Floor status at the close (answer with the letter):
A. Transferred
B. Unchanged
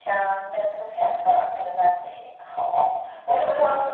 B